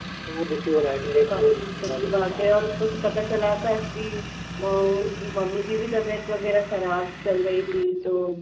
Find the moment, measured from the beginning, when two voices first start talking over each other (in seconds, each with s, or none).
1.0 s